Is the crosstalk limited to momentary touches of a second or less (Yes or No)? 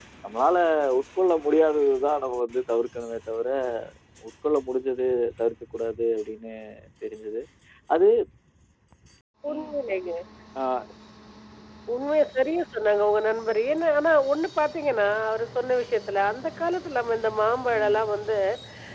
Yes